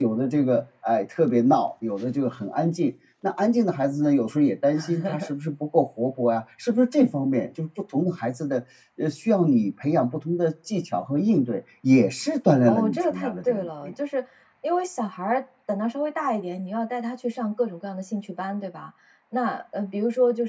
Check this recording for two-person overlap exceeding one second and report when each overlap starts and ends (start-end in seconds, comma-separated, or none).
12.6-13.9